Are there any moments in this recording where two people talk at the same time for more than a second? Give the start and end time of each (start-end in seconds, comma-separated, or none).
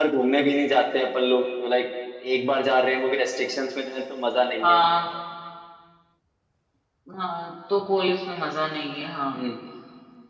none